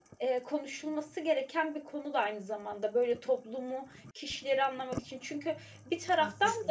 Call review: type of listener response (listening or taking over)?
listening